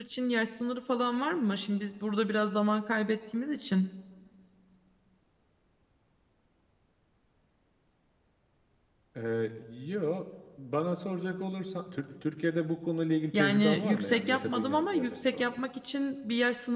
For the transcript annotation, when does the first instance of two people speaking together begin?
13.3 s

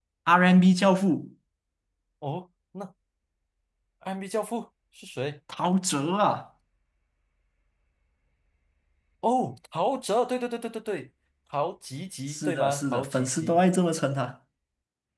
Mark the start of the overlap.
12.3 s

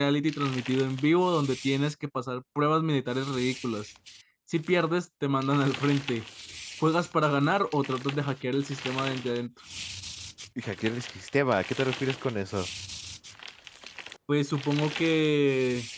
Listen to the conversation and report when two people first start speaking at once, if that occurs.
none

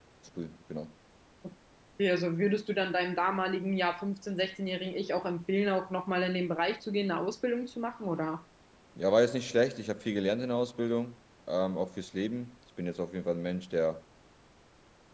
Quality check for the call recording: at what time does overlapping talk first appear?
none

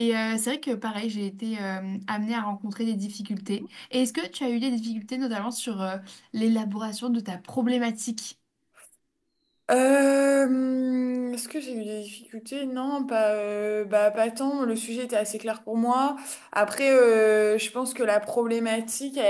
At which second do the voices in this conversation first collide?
none

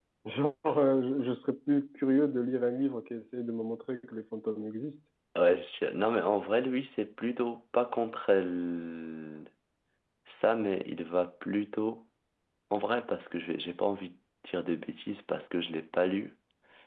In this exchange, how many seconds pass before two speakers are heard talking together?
none

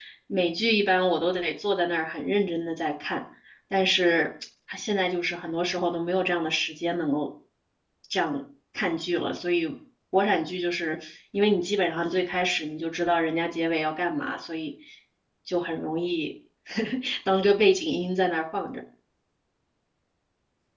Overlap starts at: none

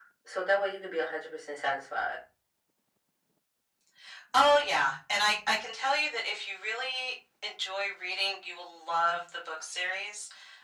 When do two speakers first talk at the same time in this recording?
none

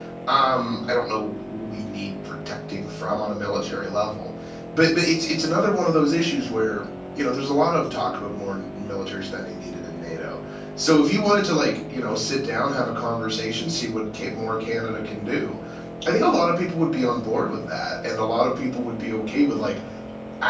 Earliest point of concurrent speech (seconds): none

